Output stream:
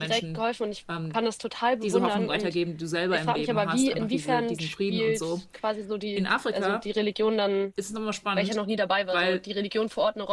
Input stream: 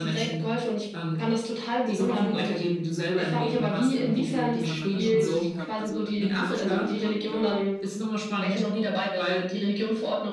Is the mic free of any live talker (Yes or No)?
No